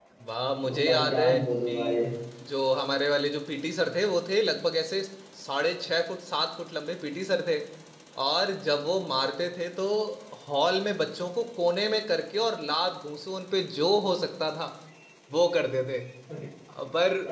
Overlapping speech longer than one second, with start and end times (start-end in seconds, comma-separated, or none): 0.6-2.0